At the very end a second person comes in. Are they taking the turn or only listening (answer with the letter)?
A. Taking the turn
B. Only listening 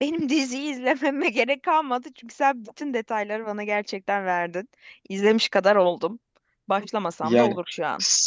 A